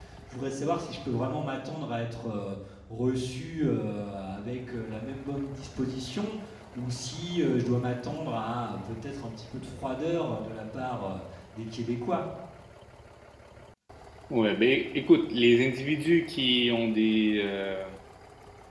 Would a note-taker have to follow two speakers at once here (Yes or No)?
No